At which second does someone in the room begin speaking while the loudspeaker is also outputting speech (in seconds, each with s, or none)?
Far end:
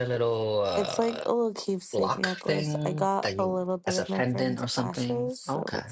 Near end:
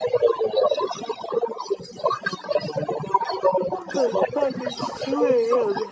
3.8 s